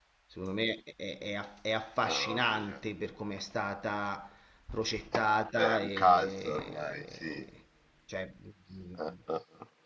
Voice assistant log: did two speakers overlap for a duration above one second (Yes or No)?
Yes